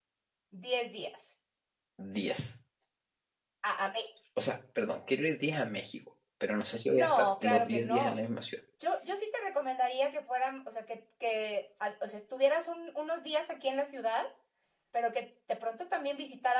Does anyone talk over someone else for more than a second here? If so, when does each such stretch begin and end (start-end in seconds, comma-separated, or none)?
6.9-8.2